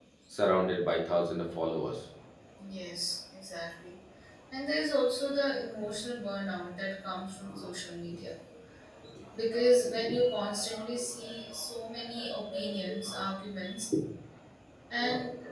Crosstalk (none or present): none